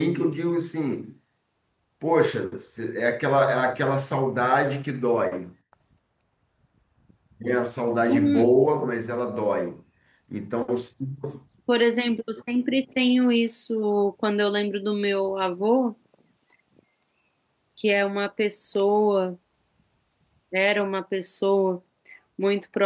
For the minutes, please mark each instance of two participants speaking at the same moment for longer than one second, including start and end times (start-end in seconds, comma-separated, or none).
none